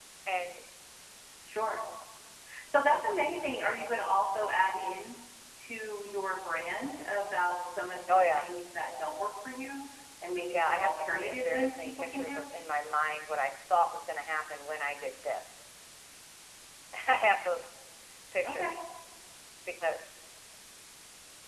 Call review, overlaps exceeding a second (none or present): present